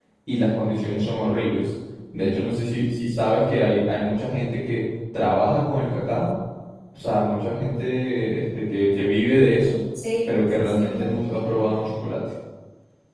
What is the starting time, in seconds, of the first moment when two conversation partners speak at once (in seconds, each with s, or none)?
10.3 s